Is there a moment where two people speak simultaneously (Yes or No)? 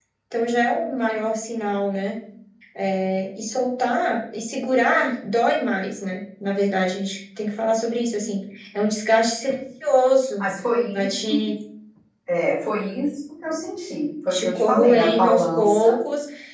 Yes